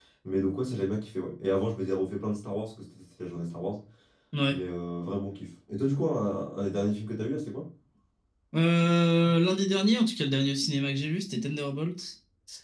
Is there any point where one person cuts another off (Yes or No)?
No